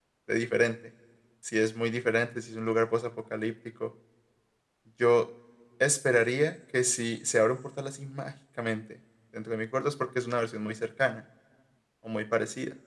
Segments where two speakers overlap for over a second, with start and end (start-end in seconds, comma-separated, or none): none